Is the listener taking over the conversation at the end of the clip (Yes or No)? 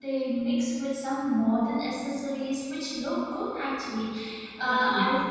No